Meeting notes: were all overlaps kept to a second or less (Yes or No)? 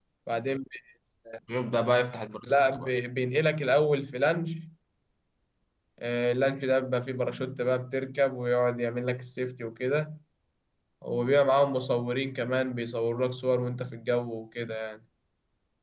Yes